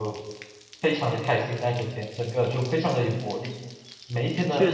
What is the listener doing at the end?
listening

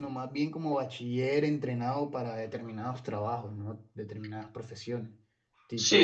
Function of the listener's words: taking over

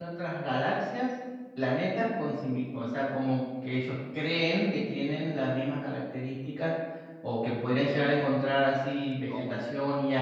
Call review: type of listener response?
listening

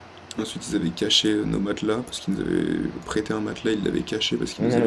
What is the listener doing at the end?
taking over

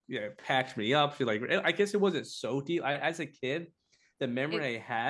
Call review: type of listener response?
listening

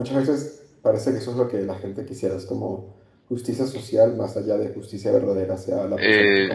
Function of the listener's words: taking over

